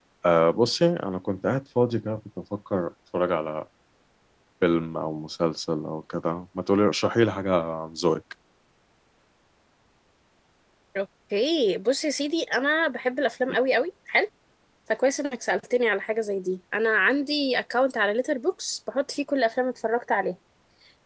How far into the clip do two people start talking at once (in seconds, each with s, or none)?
none